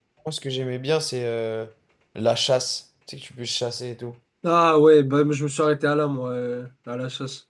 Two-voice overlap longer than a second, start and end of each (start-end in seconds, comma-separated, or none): none